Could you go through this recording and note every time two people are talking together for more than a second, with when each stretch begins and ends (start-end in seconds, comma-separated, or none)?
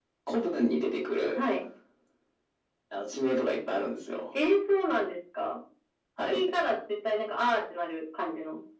none